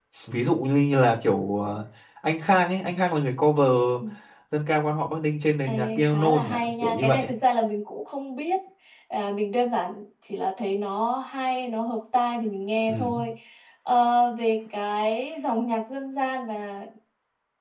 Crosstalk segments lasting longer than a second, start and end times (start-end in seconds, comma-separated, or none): 5.7-7.2